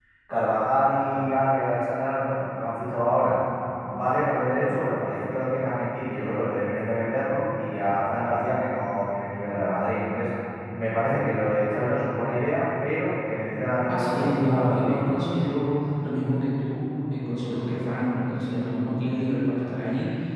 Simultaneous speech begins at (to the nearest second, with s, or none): 14 s